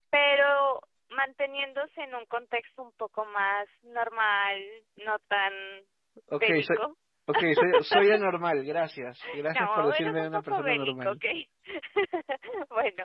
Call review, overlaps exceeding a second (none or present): present